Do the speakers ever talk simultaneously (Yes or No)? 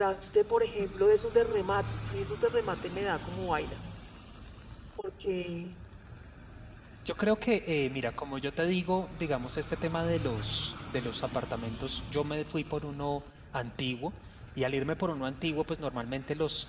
No